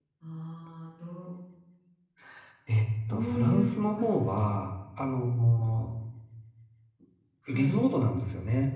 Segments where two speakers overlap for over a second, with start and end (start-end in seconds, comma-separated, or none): 3.1-4.4